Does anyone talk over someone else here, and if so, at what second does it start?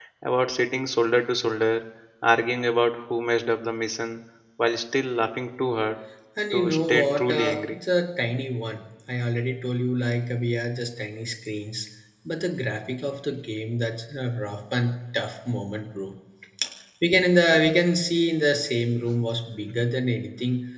6.5 s

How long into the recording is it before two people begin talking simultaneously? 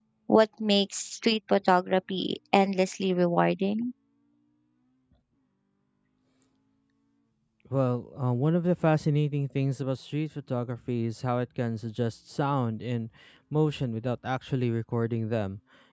none

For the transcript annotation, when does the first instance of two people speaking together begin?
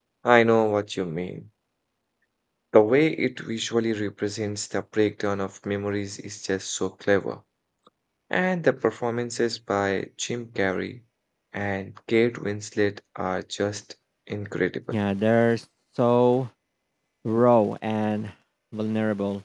none

